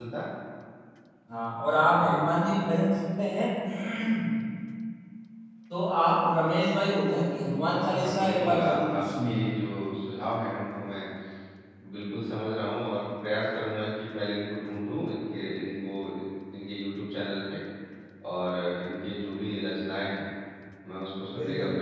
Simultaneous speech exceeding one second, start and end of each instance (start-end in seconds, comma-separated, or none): 8.0-9.5